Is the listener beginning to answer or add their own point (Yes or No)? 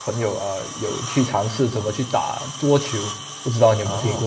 Yes